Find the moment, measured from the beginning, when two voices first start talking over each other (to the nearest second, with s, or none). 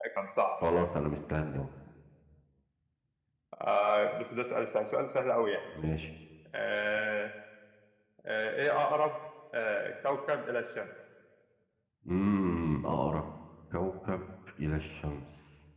none